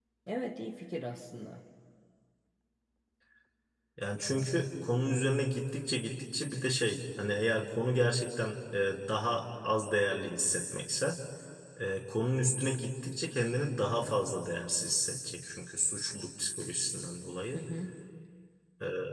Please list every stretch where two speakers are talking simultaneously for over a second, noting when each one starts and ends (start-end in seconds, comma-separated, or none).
none